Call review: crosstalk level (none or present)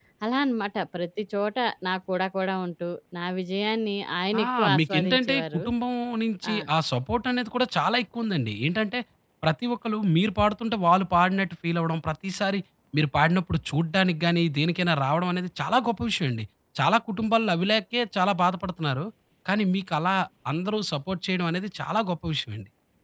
present